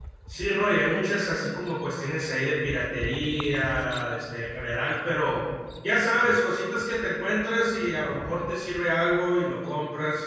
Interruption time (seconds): none

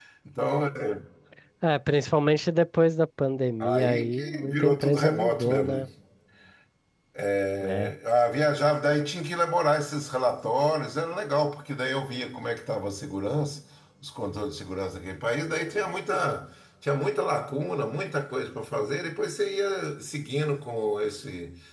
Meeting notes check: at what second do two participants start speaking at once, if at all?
3.6 s

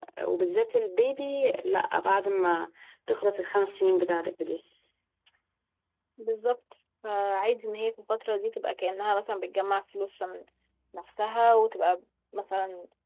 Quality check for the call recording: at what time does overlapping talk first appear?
none

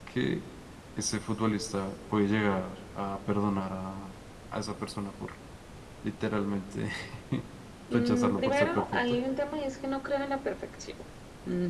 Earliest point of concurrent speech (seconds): 7.9 s

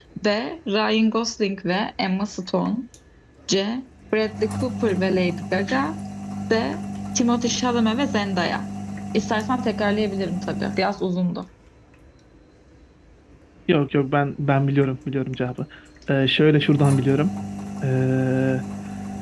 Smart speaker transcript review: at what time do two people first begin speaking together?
none

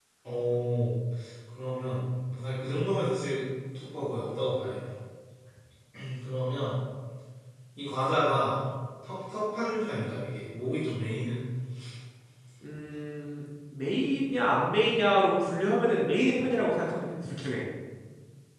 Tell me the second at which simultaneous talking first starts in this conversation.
none

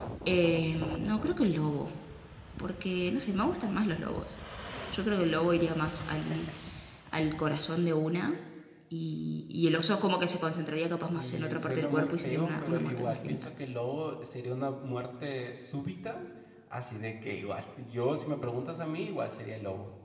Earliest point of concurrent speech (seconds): 11.1 s

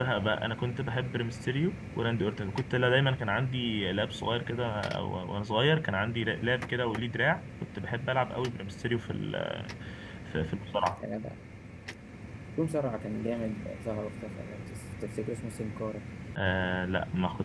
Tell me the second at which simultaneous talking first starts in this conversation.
none

